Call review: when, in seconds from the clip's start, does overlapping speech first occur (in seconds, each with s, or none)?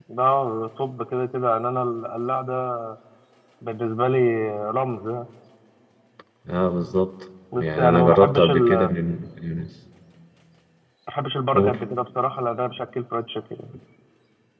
7.6 s